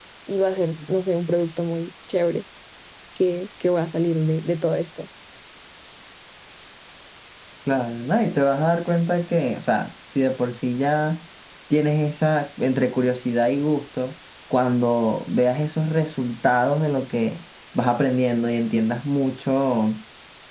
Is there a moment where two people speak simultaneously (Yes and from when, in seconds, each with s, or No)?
No